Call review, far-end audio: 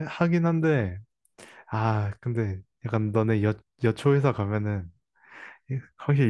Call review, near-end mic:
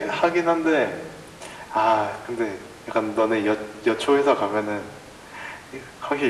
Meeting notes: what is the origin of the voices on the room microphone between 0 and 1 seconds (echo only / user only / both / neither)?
echo only